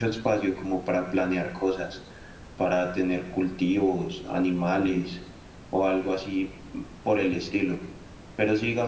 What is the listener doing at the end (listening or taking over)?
listening